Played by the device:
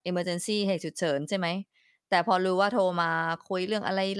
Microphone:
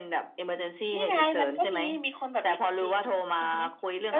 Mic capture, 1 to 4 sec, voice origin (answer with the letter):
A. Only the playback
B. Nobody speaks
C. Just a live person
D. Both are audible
D